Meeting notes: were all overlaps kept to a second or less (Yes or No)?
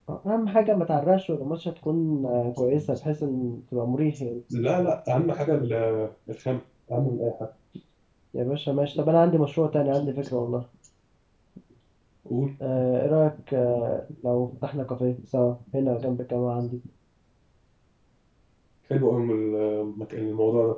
Yes